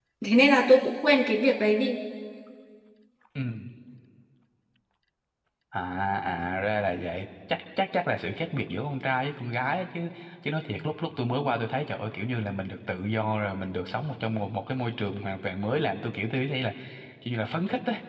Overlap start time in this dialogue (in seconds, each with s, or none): none